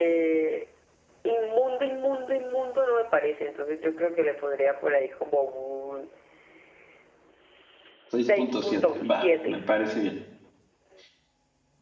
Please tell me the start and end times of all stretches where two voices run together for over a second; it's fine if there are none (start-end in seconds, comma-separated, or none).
8.2-9.6